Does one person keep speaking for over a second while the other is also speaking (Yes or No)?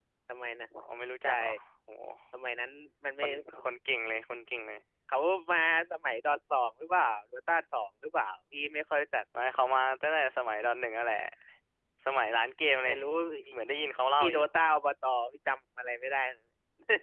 No